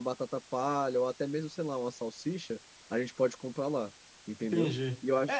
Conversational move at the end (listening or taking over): taking over